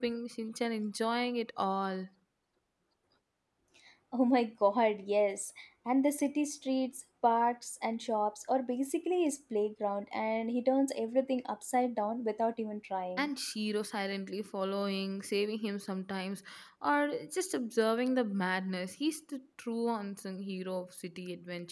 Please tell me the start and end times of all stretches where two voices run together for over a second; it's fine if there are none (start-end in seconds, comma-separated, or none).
none